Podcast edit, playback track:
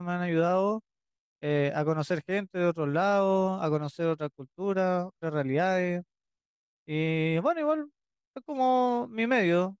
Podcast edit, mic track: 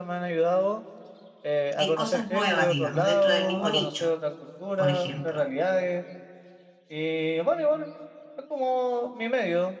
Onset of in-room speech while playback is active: 2 s

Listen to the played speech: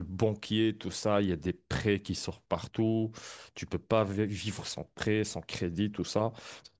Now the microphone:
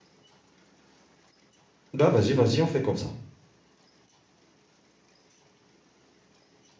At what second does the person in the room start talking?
2 s

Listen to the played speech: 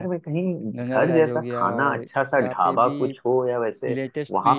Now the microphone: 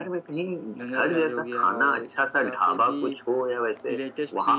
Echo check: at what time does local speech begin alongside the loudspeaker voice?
none

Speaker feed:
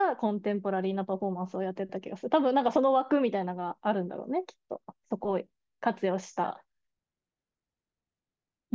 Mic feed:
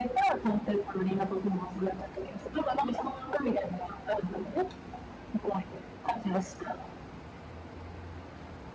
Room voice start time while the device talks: none

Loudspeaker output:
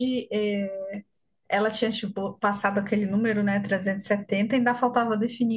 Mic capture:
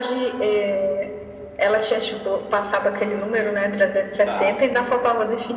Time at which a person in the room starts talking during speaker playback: 4 s

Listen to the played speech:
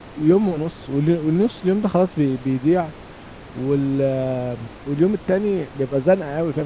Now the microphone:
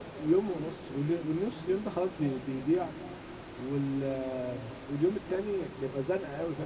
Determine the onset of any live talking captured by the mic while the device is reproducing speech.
none

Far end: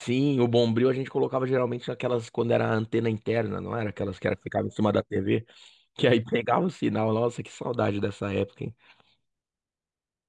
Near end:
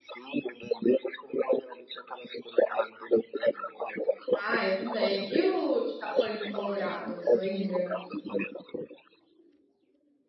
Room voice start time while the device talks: 4 s

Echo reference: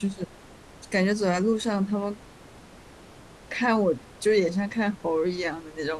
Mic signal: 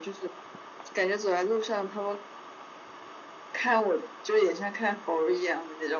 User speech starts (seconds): none

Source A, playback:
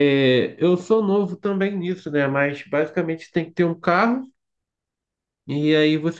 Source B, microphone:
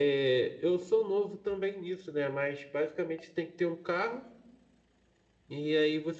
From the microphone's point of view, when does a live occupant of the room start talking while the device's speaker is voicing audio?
none

